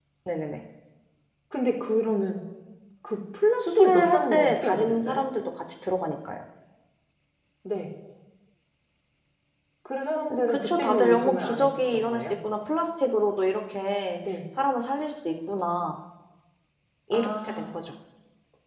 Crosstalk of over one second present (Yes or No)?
Yes